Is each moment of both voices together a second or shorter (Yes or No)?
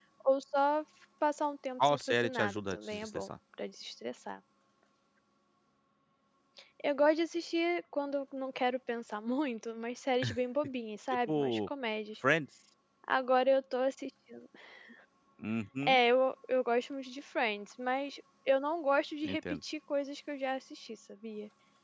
No